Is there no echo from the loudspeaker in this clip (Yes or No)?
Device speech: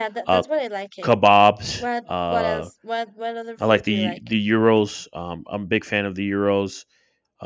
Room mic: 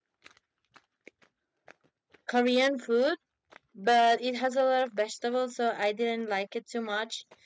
Yes